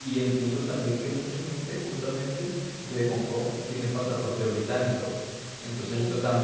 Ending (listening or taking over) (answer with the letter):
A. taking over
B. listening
B